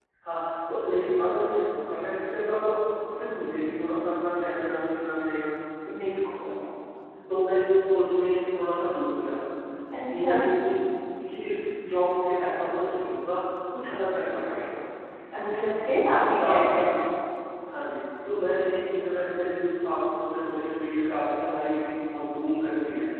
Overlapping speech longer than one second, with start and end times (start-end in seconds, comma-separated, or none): 15.4-16.9